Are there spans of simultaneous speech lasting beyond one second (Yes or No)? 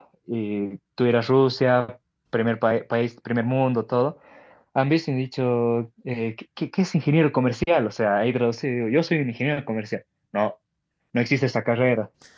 No